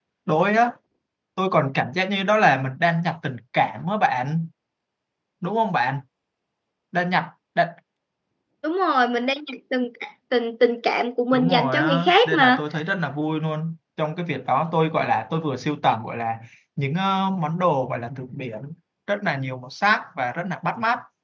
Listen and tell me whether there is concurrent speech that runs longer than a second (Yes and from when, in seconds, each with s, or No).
Yes, from 11.3 s